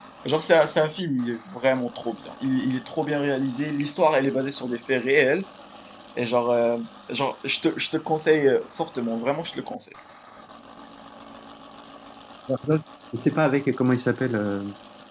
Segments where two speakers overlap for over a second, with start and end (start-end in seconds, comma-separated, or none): none